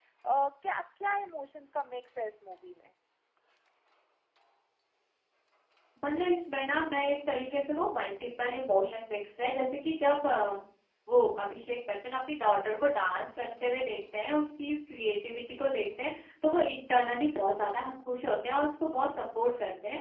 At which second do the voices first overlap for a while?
none

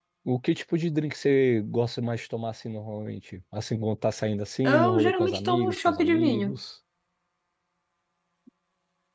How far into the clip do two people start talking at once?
4.6 s

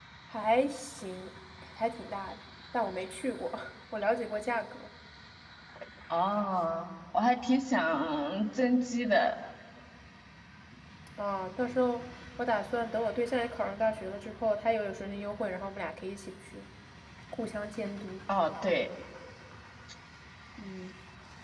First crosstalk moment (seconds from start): none

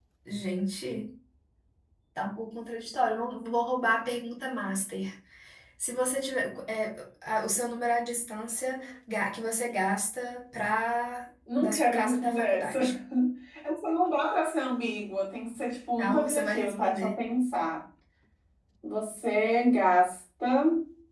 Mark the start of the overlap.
11.6 s

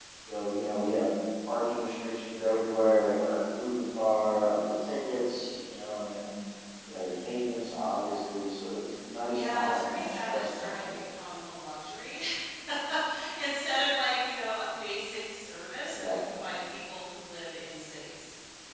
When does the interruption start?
9.3 s

